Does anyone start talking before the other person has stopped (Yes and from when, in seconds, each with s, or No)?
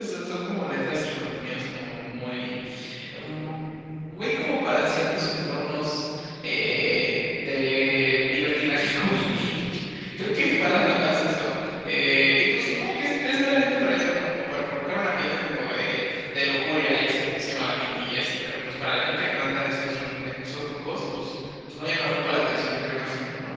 No